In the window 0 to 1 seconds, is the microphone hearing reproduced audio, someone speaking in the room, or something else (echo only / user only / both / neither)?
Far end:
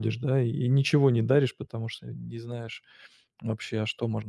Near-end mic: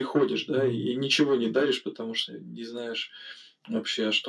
both